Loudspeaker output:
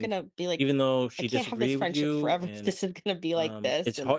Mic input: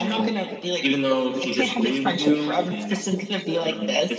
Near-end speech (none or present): none